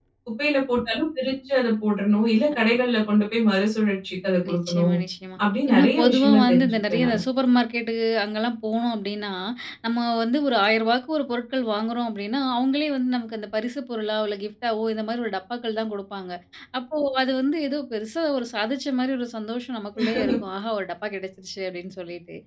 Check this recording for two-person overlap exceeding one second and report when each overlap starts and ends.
5.7-7.2

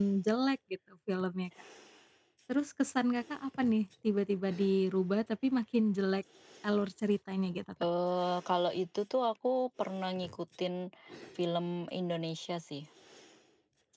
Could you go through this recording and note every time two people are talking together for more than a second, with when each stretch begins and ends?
none

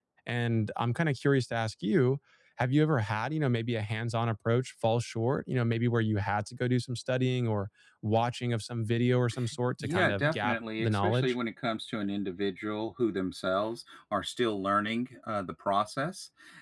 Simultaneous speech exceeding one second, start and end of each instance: 9.8-11.3

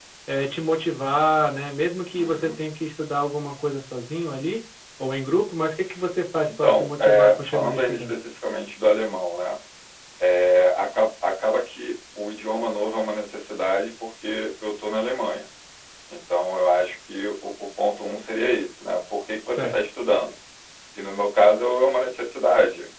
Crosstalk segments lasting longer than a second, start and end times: 6.6-8.2

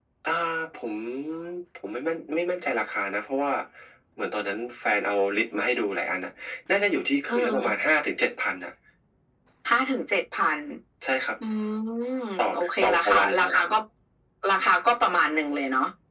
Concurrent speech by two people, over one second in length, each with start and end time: 12.4-13.7

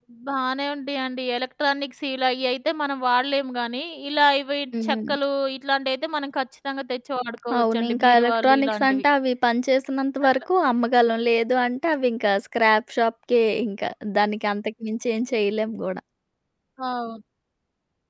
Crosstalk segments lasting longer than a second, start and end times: 7.6-9.0

